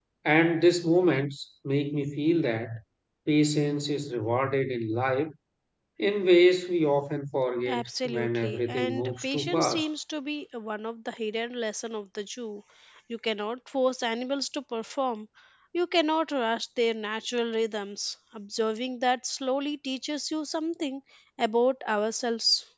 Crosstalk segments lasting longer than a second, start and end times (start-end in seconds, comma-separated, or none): 7.7-9.9